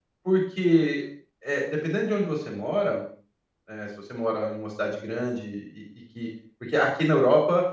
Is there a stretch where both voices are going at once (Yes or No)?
No